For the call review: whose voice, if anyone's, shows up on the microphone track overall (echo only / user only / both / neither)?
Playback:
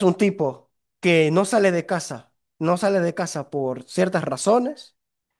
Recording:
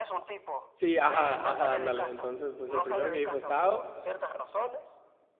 both